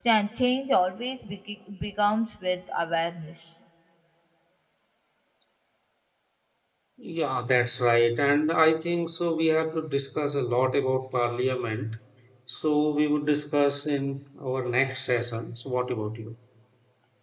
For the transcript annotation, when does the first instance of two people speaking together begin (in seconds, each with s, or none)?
none